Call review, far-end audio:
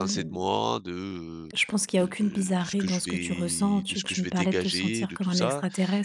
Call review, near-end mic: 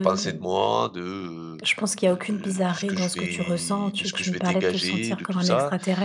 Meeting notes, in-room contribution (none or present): none